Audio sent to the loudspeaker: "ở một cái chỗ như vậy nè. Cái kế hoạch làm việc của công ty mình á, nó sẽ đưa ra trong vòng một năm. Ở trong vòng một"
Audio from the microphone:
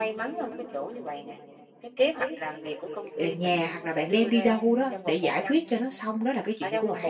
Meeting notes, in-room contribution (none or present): present